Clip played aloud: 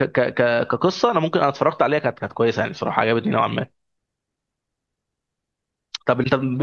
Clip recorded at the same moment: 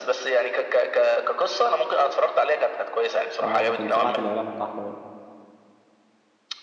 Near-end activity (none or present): present